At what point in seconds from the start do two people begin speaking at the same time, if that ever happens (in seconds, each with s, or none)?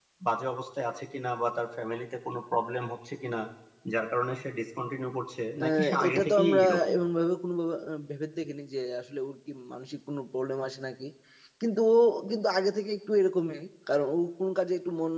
5.6 s